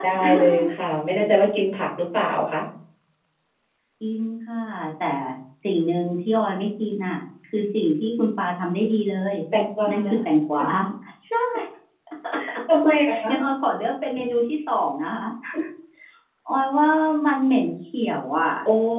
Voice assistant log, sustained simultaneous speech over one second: none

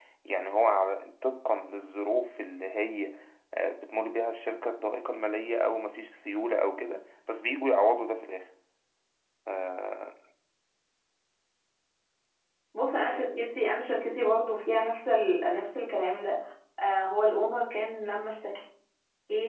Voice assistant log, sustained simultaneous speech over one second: none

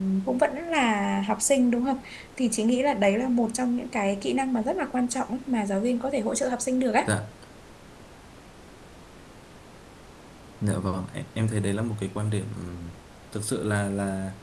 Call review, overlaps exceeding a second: none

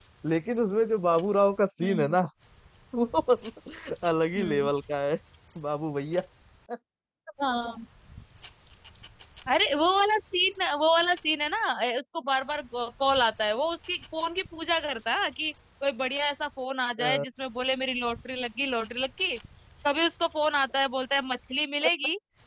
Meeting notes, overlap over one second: none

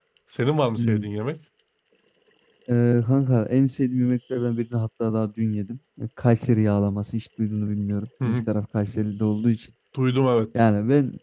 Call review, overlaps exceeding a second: none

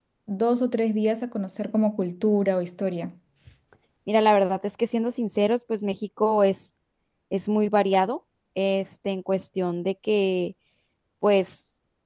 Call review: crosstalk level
none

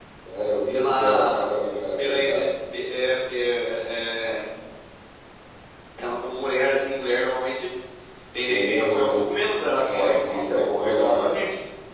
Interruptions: present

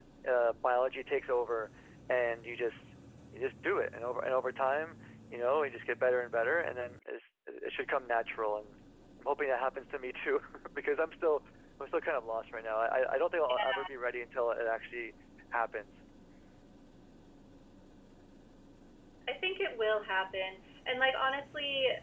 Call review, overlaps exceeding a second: none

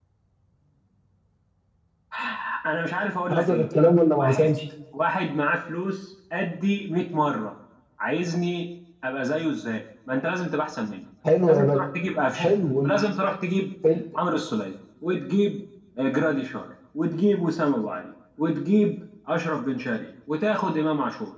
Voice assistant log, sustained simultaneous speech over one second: none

